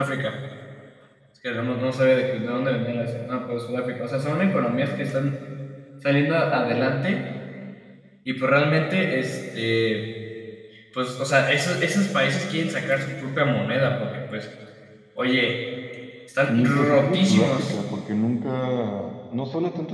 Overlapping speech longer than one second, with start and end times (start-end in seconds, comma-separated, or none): 16.5-17.8